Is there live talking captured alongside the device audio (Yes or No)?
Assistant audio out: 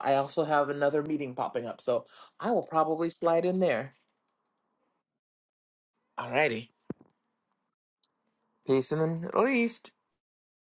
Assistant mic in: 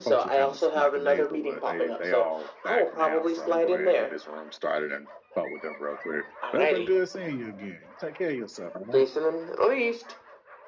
Yes